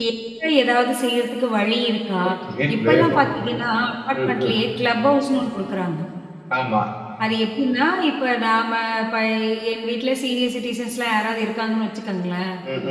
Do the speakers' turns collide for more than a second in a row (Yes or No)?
No